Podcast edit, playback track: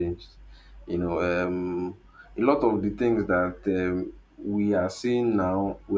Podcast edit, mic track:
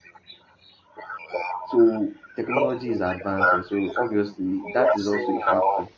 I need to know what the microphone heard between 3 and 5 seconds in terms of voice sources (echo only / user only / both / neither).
both